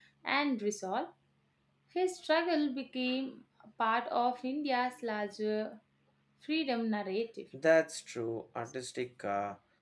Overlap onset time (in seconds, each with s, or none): none